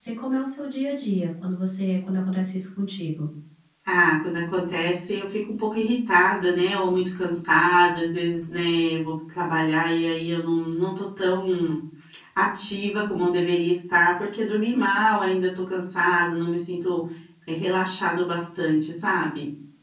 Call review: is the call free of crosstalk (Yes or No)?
Yes